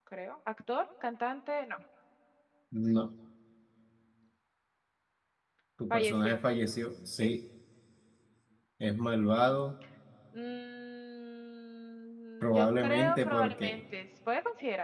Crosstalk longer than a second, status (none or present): present